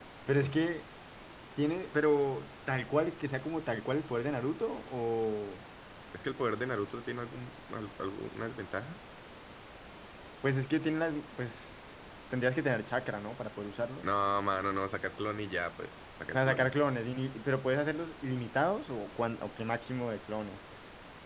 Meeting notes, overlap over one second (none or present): none